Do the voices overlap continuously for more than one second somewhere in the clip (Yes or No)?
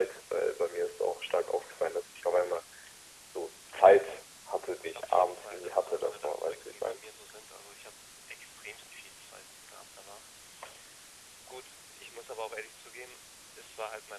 Yes